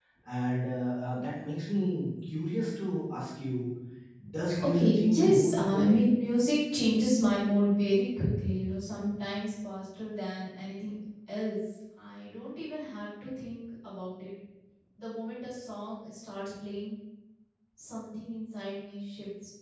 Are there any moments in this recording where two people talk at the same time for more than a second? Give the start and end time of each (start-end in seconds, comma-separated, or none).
4.6-6.0